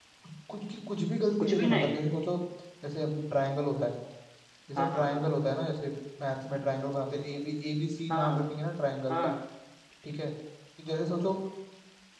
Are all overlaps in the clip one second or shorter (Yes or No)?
Yes